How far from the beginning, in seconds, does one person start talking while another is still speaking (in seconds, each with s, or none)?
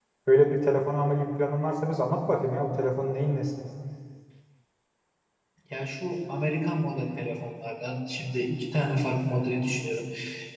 none